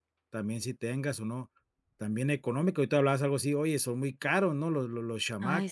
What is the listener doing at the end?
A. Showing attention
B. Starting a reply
B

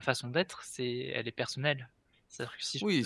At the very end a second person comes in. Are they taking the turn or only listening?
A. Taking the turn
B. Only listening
A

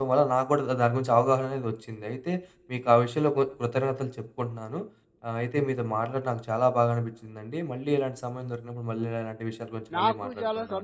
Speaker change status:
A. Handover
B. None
A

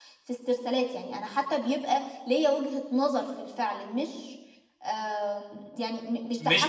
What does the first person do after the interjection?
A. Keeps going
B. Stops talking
B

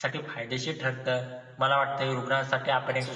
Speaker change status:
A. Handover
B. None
B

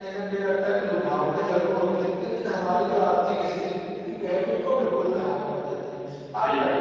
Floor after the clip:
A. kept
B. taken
B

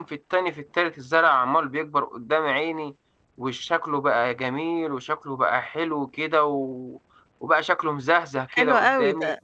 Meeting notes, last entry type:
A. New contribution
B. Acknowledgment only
A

